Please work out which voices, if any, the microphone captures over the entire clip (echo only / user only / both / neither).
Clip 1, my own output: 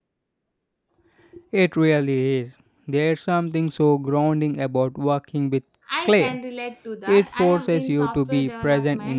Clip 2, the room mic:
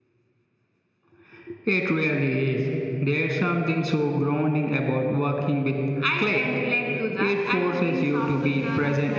echo only